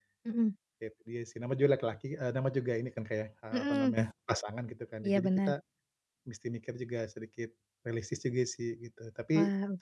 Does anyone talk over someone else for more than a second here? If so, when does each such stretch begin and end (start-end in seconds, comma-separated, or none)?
none